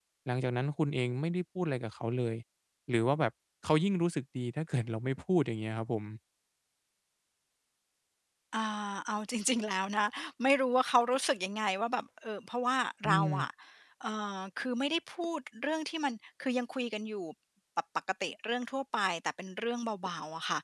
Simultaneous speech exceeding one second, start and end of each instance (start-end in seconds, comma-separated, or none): none